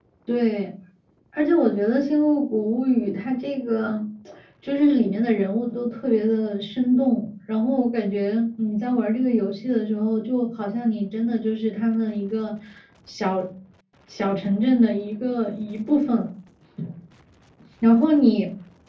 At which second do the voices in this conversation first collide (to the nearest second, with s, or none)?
none